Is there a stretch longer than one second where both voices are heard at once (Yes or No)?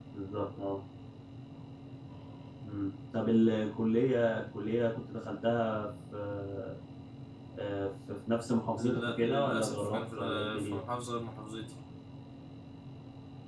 Yes